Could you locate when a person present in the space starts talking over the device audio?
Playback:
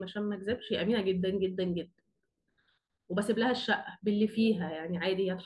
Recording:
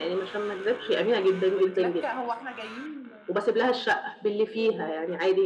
1.5 s

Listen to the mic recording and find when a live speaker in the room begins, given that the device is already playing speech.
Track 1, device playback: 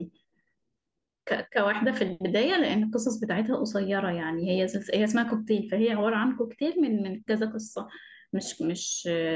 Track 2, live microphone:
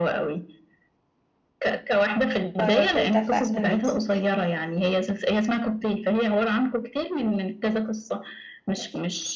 2.6 s

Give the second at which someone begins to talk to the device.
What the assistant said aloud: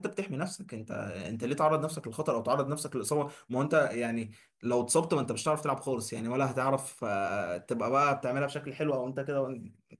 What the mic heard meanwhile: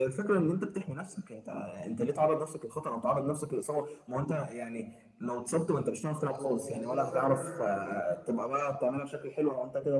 6.1 s

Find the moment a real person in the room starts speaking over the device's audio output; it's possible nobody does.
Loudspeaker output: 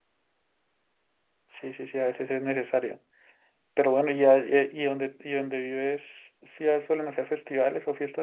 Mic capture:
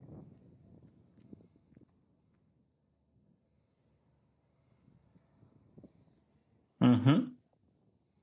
6.8 s

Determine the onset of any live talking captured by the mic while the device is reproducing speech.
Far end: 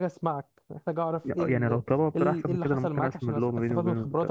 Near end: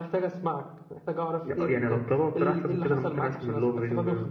none

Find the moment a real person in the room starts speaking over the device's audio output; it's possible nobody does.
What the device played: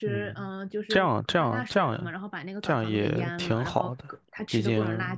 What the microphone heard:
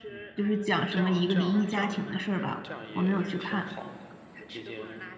0.3 s

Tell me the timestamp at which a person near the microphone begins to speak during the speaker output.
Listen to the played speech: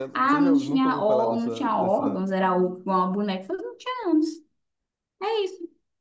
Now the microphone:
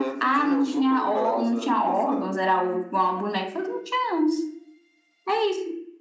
none

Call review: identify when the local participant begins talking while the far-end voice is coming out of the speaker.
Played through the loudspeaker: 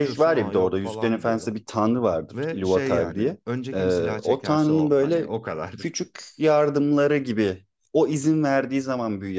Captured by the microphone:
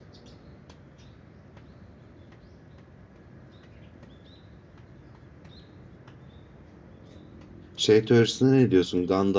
7.8 s

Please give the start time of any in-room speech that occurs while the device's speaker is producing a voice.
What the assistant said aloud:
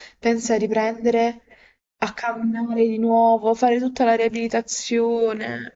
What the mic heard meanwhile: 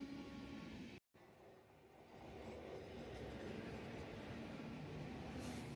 none

